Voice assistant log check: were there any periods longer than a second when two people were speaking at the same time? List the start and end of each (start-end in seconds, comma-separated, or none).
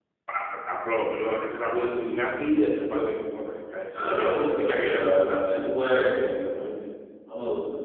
3.9-5.5